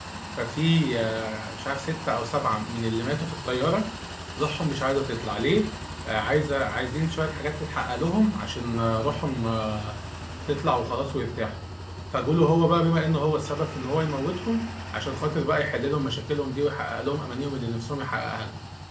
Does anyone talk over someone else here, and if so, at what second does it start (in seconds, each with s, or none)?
none